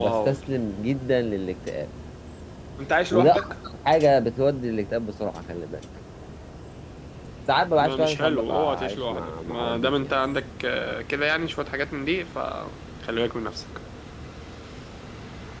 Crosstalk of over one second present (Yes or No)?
Yes